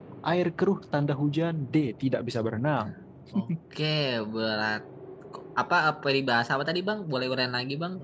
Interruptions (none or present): none